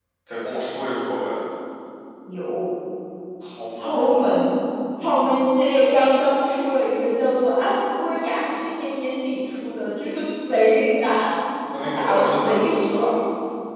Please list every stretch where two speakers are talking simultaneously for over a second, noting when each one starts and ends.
11.8-13.0

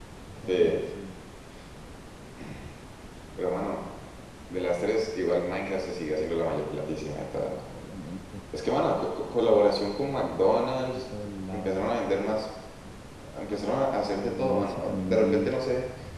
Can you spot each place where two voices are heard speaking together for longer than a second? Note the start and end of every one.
14.2-15.6

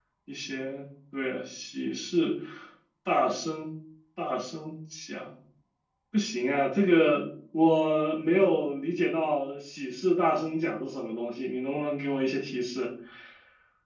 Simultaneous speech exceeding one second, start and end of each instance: none

